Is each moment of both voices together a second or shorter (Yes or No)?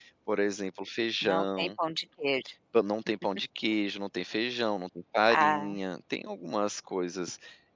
Yes